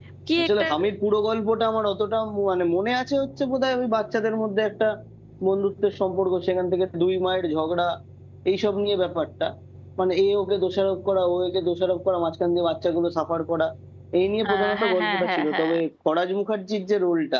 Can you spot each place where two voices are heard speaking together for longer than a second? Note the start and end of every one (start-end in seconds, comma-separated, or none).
14.5-15.8